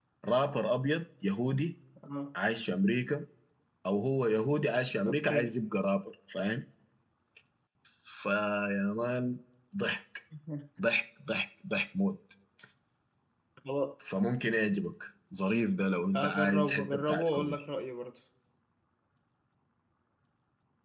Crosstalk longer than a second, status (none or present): present